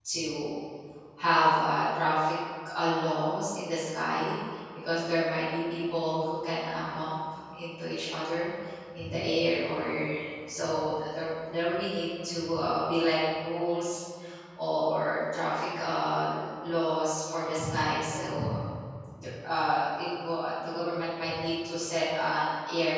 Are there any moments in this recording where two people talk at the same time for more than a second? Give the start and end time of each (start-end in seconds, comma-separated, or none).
none